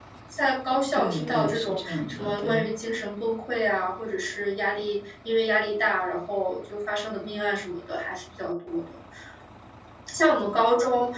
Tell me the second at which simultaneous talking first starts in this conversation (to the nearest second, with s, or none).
1 s